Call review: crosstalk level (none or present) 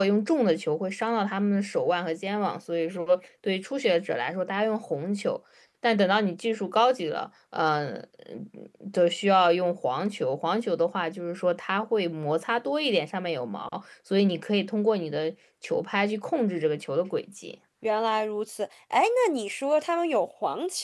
none